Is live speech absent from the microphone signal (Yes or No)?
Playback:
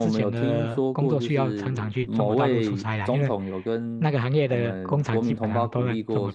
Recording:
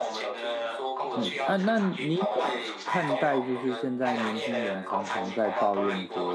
No